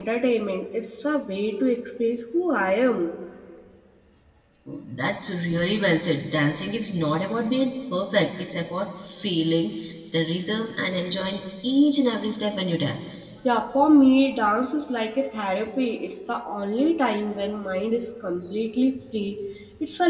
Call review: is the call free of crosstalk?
Yes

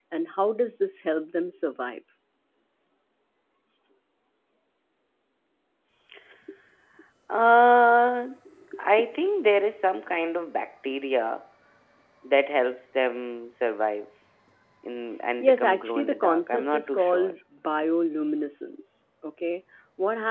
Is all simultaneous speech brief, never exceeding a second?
No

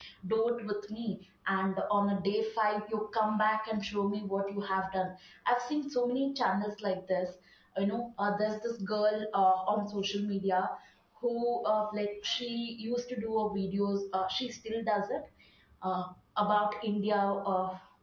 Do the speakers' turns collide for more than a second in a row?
No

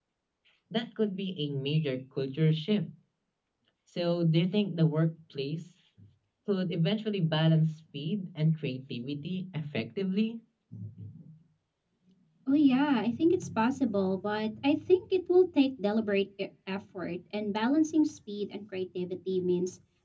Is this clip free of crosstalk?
Yes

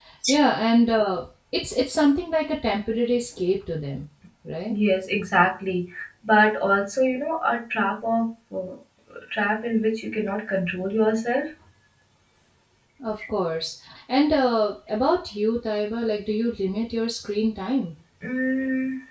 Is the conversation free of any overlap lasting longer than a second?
Yes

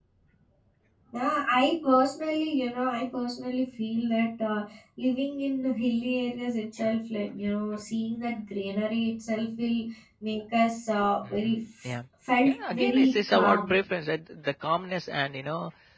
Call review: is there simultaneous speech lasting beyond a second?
Yes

